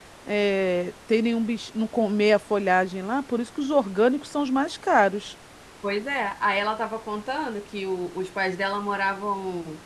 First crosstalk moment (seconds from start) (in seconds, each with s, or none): none